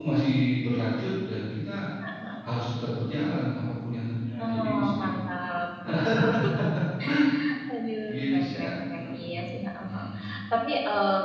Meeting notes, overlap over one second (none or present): present